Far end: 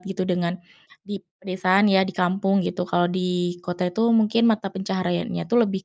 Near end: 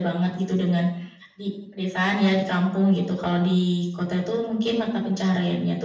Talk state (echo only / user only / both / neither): echo only